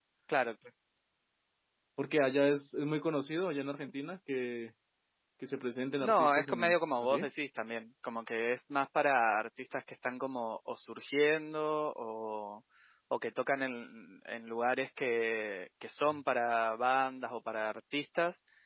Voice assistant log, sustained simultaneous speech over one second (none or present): present